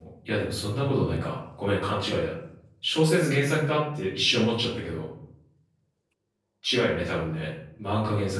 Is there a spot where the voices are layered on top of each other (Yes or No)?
No